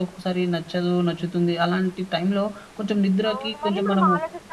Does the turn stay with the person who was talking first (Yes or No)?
No